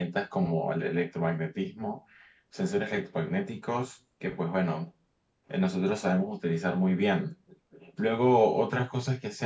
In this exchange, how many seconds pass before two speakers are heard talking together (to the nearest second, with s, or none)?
none